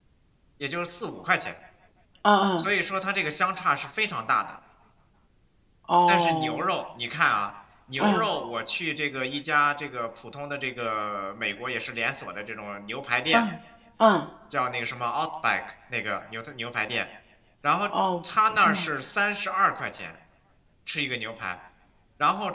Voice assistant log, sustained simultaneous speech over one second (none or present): none